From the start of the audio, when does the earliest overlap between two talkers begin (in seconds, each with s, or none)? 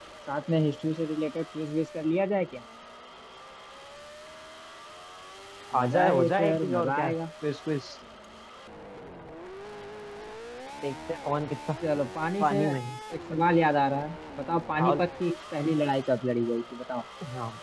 5.8 s